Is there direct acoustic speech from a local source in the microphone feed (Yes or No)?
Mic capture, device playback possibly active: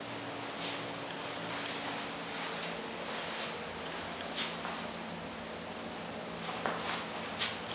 No